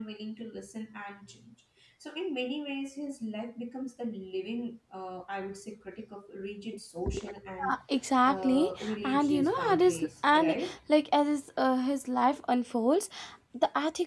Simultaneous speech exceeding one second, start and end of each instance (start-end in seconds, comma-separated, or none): 8.3-10.8